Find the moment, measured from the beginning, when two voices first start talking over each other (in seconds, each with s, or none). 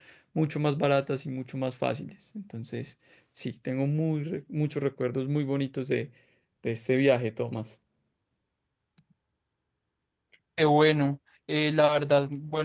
none